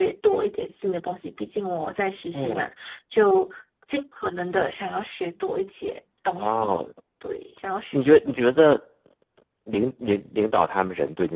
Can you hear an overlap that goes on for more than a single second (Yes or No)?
No